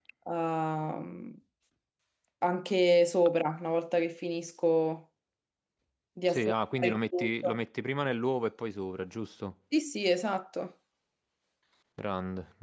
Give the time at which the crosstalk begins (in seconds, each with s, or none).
6.3 s